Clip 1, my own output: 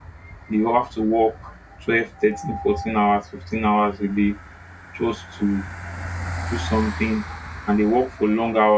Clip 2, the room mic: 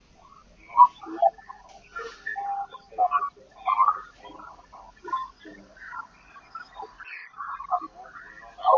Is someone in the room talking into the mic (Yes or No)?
No